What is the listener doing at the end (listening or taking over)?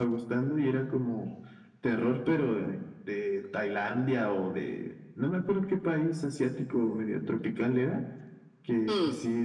listening